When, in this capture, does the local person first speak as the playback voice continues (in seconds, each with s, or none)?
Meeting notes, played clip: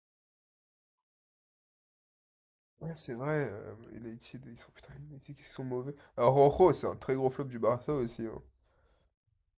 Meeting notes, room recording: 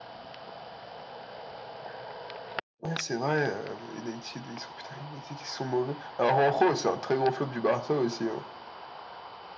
none